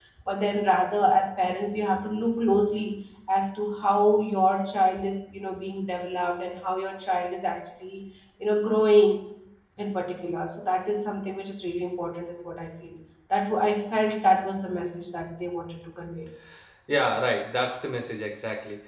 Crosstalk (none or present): none